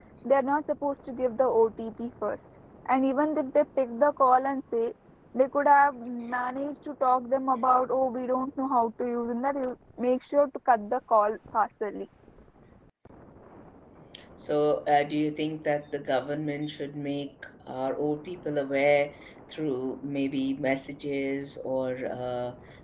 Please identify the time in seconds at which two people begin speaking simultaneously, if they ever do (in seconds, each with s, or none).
none